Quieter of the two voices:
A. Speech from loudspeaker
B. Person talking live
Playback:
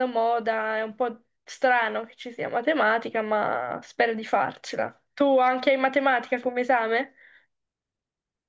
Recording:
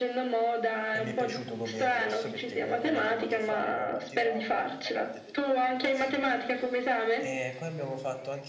B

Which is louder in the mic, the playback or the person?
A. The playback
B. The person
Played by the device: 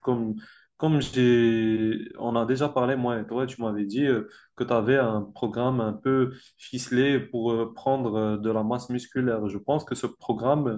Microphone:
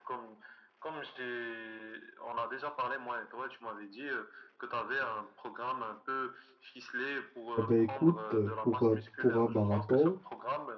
B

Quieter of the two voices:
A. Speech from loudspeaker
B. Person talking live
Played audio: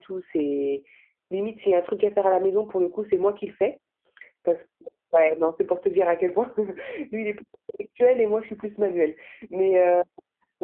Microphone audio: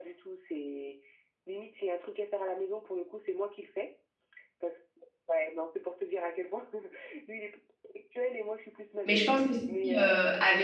A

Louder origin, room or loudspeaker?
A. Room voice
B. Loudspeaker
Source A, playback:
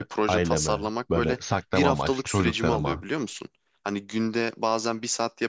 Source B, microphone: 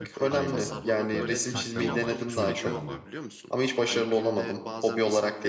A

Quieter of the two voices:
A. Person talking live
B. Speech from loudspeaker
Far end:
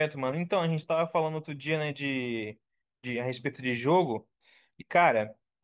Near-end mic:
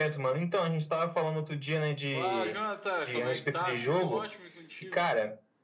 A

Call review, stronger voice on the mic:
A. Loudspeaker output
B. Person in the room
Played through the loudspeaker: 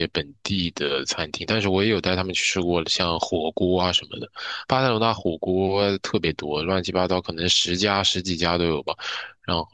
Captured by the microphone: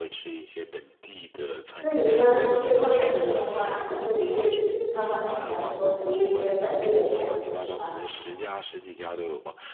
B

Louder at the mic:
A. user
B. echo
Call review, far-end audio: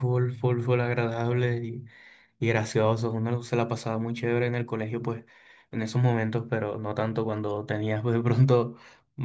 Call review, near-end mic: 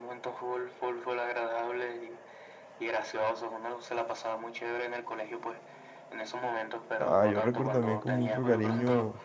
A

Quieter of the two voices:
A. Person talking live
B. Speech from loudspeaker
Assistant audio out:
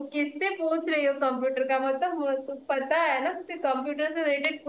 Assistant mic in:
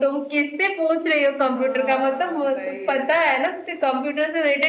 A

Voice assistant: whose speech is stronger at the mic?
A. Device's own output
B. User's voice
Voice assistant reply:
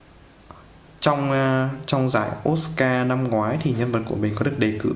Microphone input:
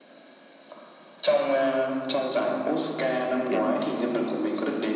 A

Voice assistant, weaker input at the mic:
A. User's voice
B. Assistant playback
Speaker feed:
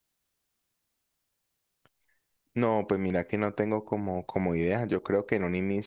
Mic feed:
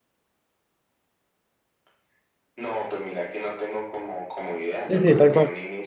B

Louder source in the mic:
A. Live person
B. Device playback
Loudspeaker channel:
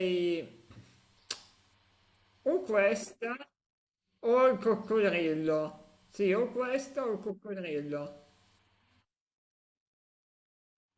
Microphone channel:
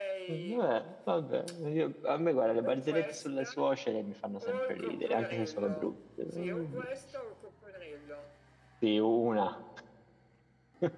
A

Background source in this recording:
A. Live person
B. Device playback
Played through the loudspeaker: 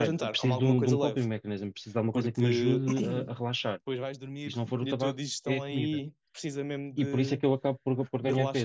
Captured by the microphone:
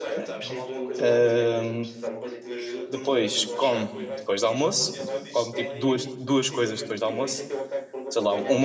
B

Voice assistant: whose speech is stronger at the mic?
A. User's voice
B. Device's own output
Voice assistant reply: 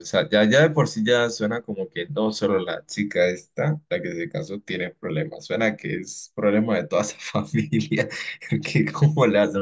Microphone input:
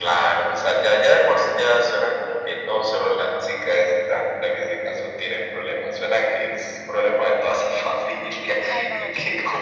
B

